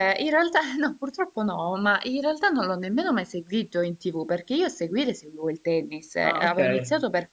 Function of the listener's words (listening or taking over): listening